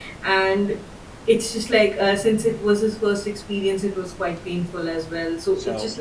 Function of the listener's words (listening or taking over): listening